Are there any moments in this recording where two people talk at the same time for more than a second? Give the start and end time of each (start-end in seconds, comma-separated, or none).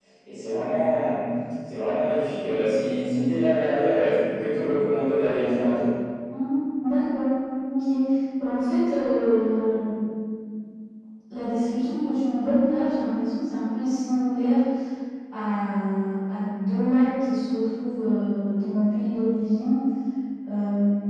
none